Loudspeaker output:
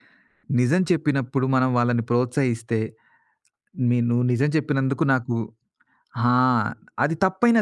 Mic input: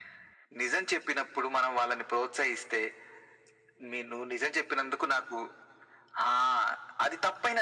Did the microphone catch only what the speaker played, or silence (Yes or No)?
Yes